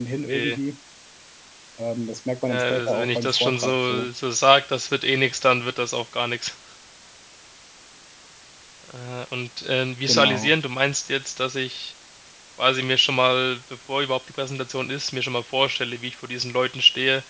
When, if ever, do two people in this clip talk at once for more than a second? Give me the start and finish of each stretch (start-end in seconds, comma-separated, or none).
2.5-4.1